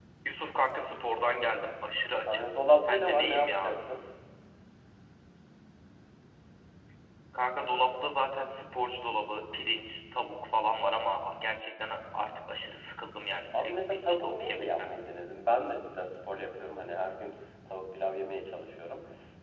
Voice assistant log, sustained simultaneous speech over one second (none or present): present